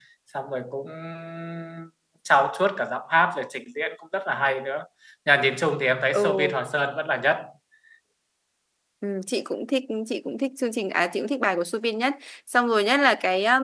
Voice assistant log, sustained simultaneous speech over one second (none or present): none